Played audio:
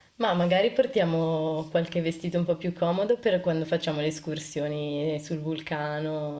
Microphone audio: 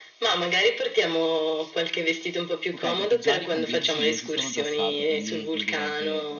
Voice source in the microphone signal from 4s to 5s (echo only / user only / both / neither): both